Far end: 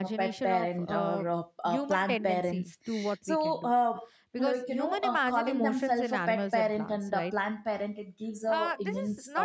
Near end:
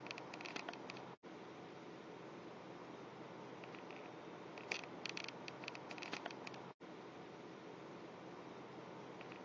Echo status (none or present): none